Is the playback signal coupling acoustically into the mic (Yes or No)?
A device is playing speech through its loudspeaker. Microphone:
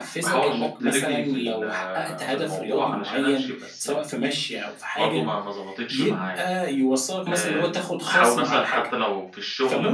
Yes